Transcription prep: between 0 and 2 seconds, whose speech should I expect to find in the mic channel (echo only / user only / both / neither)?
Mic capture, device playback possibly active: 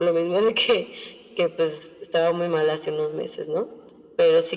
echo only